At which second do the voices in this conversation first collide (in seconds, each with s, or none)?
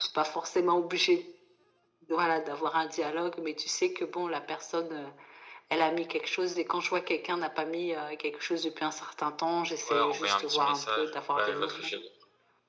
9.9 s